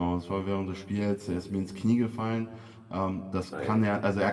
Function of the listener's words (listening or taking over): listening